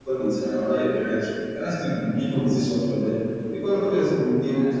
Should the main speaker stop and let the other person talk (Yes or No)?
No